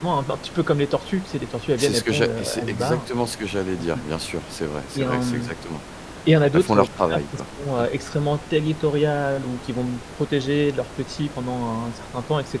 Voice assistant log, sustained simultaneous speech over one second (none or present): present